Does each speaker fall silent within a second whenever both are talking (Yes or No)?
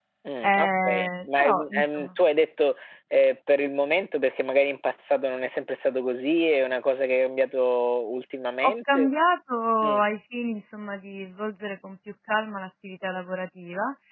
No